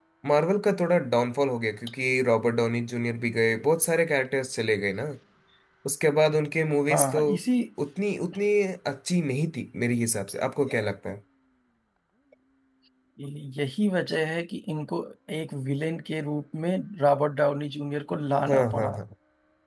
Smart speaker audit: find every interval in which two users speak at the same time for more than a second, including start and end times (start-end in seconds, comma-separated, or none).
none